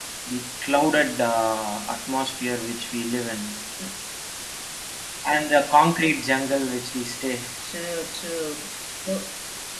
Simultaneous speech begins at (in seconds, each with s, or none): none